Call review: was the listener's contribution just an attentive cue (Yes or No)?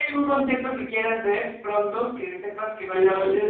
No